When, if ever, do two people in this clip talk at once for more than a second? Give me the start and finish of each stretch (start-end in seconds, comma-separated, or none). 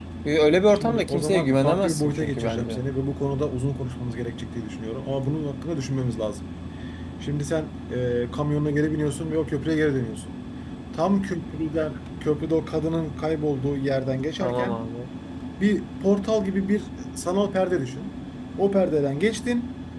0.7-2.8